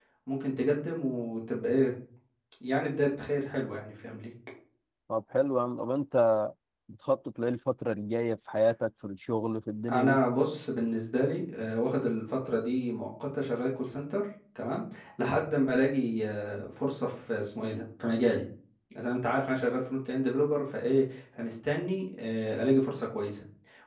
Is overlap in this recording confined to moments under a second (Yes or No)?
Yes